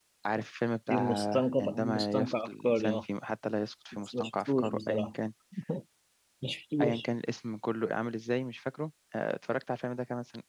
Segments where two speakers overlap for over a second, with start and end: 0.9-3.0, 3.9-5.1

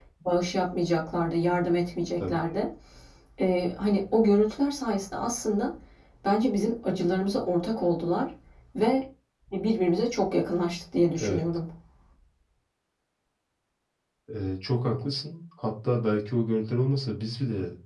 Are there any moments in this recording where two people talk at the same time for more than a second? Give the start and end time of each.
none

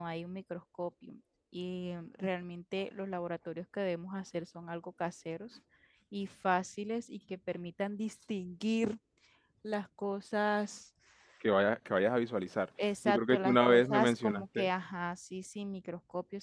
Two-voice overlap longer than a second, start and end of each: 13.1-14.7

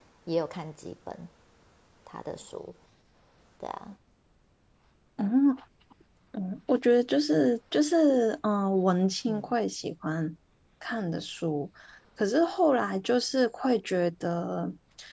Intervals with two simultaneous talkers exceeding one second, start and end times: none

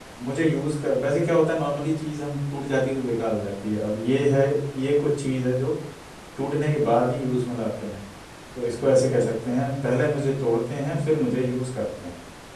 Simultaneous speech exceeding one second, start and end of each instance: none

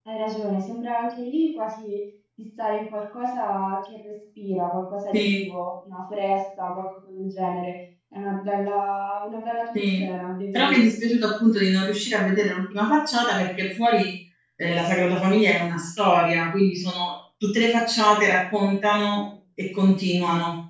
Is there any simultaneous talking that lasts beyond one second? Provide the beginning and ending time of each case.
none

